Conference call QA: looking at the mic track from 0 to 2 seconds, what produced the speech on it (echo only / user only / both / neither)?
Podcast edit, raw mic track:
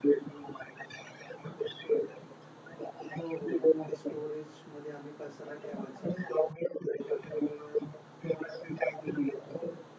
echo only